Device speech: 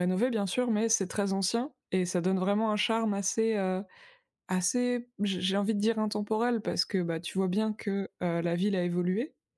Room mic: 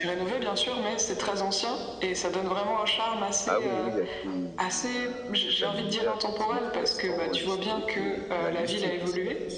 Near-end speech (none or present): present